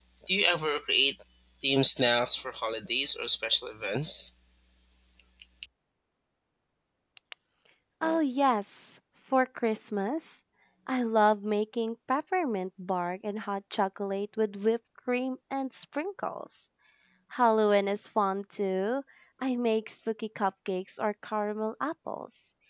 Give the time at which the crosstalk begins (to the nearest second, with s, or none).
none